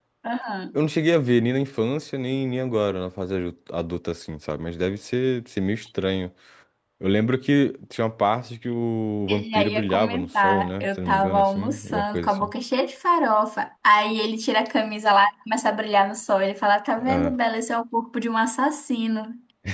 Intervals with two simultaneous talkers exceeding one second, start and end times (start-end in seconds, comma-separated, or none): 9.3-12.5